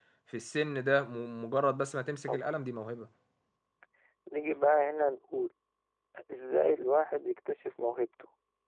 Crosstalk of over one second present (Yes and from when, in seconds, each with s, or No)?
No